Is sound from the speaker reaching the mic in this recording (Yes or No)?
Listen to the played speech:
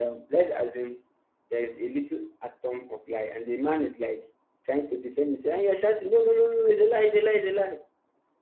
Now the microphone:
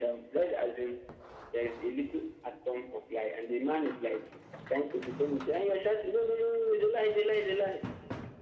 Yes